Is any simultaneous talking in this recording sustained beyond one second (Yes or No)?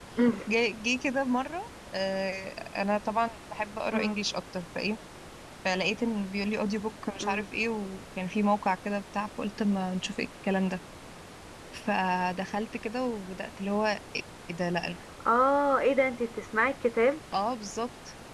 No